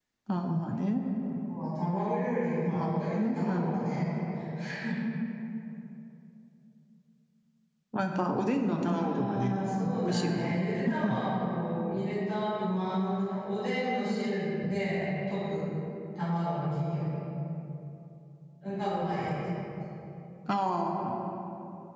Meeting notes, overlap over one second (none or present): present